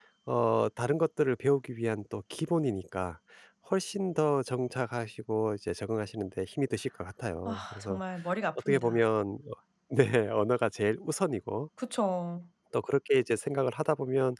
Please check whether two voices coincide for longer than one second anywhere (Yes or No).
No